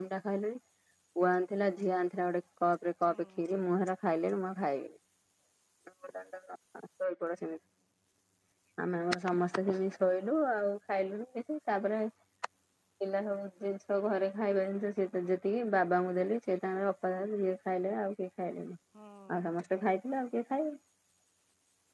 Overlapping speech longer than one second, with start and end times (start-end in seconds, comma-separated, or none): none